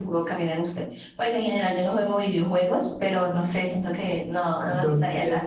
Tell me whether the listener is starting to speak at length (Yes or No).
Yes